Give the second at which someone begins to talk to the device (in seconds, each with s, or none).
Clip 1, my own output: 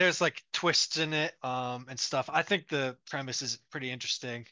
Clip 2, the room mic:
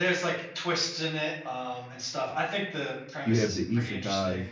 3.2 s